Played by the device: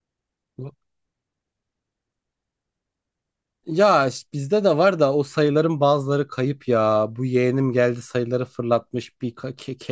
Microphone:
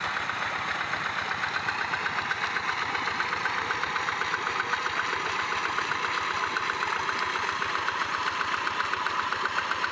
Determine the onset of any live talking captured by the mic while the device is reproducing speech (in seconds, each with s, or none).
none